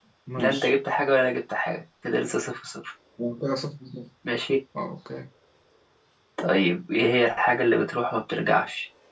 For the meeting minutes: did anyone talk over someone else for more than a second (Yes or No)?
No